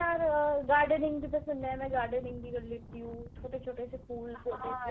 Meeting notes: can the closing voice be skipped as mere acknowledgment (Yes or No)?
No